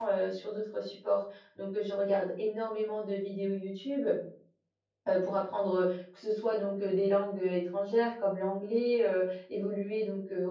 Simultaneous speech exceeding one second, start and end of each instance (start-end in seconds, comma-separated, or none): none